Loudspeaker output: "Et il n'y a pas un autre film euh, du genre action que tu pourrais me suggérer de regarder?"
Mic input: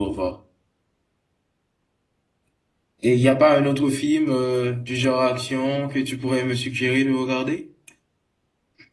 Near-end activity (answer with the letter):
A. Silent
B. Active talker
A